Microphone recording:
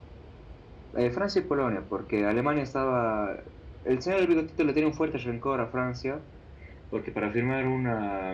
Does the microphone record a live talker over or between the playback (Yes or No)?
Yes